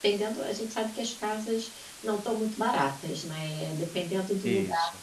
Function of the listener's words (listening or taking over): listening